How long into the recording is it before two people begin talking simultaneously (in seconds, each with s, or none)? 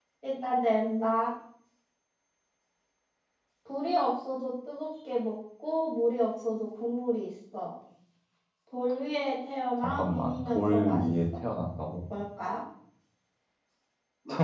9.8 s